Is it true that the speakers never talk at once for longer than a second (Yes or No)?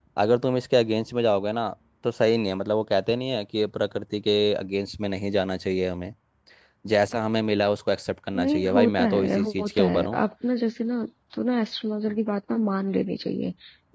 No